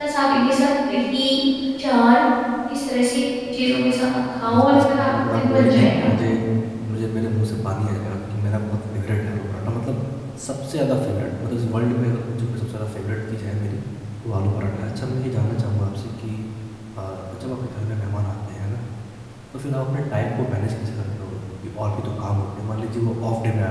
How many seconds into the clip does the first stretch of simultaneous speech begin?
4.4 s

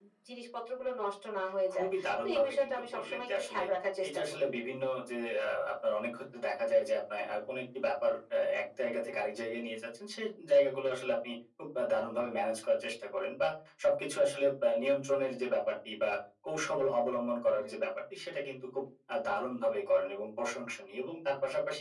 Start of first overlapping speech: 1.7 s

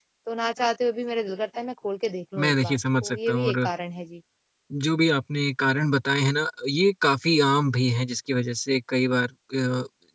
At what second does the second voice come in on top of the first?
2.4 s

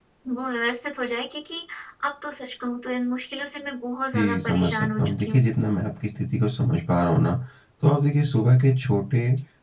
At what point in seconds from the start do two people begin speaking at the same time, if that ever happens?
4.1 s

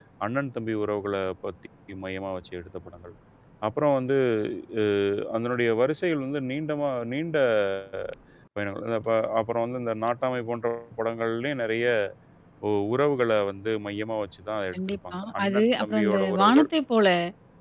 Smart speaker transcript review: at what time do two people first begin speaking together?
14.7 s

